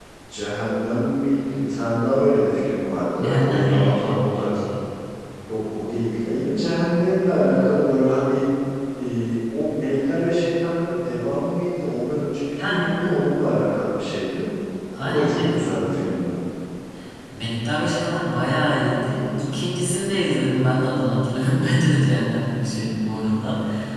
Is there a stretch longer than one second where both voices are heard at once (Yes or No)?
Yes